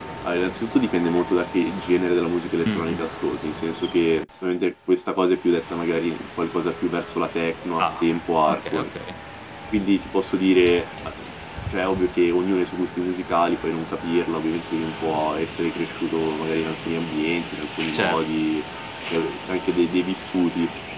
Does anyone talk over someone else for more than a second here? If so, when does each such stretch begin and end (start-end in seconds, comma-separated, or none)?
none